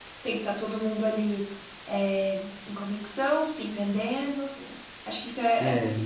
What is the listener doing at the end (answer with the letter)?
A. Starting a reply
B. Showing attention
B